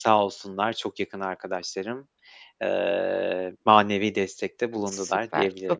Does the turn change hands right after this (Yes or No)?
Yes